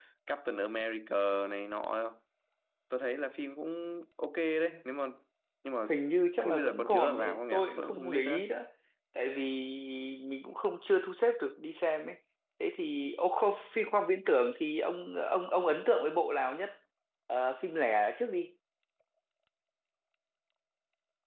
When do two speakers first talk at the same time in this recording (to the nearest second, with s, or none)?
6 s